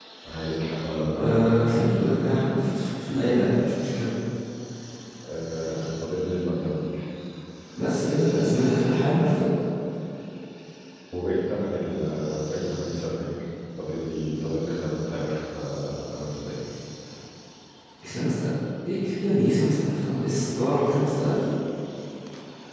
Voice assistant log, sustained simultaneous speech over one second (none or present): none